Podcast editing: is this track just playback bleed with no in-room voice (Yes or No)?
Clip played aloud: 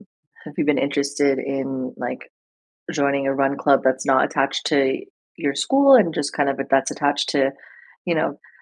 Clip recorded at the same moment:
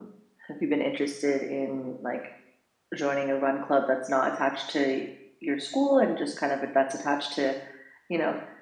Yes